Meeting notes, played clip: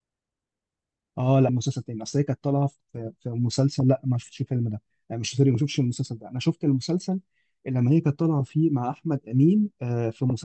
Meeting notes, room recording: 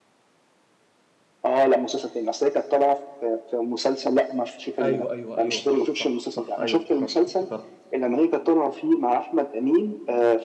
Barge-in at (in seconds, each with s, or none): 4.8 s